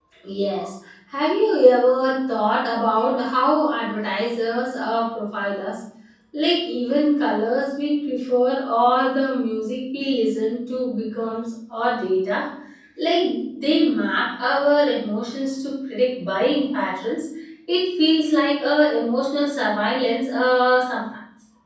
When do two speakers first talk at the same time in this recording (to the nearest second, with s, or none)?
none